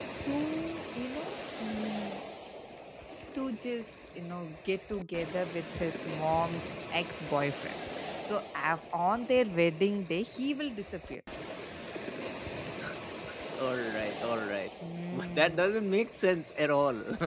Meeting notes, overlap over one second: none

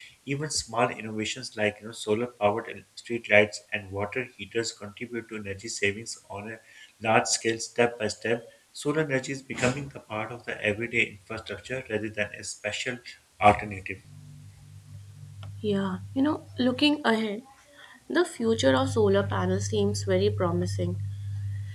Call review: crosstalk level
none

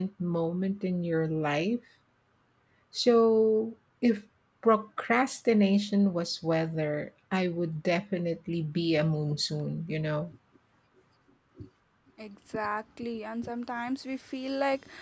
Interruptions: none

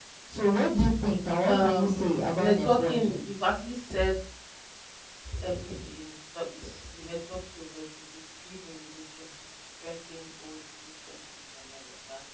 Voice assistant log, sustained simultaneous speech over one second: present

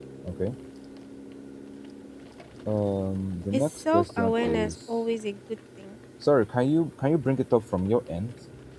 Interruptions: present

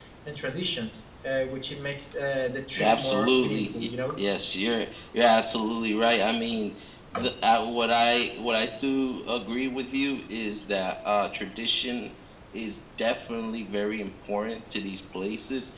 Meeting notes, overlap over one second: present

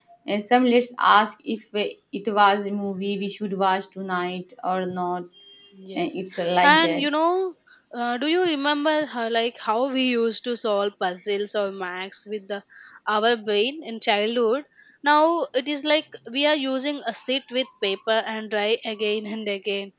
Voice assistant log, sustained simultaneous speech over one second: none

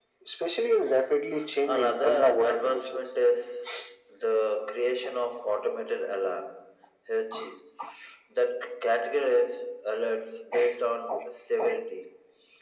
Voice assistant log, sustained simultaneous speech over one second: present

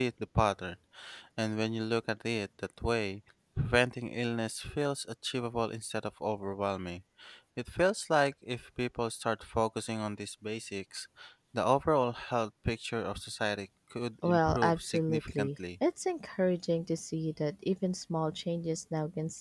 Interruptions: present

